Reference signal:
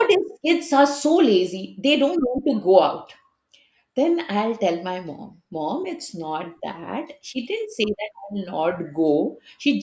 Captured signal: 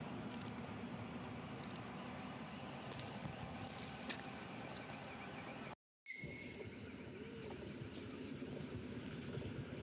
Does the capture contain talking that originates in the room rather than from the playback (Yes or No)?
No